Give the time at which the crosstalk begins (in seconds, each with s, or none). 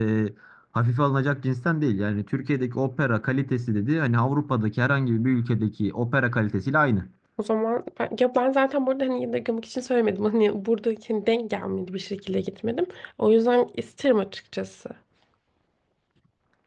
none